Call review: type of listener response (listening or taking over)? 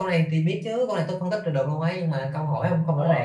taking over